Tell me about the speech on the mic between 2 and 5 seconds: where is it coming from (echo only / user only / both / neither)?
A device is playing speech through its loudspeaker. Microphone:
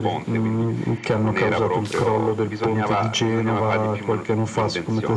echo only